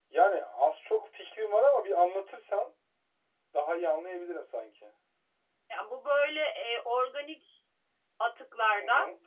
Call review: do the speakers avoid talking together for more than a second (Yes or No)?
Yes